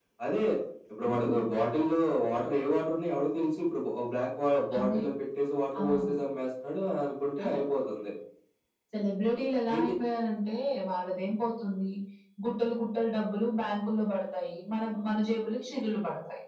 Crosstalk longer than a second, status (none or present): none